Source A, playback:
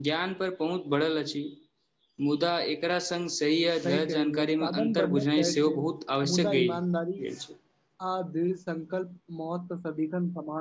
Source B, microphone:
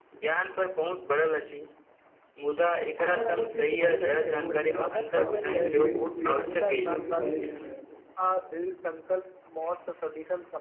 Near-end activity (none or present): present